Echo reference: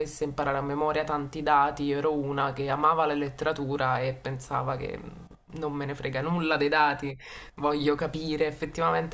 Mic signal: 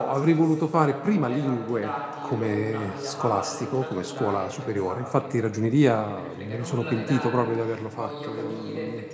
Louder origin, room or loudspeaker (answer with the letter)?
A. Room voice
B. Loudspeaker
A